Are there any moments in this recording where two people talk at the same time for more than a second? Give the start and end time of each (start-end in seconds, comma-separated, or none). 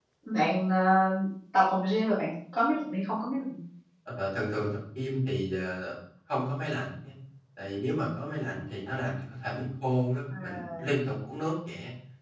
none